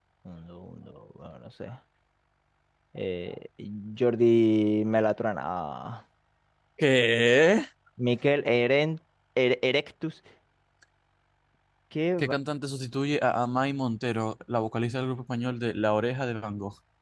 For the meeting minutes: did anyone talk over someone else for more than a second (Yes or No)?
No